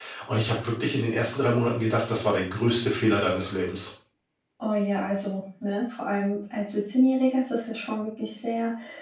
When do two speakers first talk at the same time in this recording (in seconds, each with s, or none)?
none